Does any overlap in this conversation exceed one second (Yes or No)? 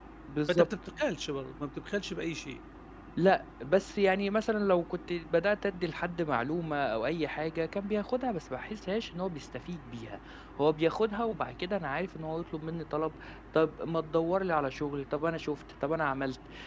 No